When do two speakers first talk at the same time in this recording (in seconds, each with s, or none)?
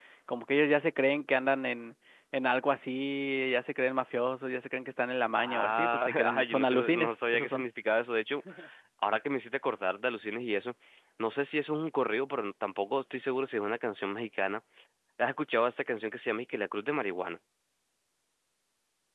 5.4 s